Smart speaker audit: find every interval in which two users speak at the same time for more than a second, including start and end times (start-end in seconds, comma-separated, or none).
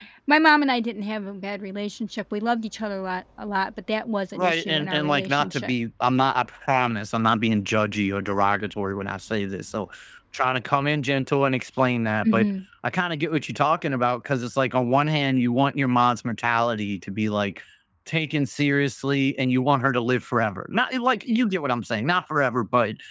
4.3-5.7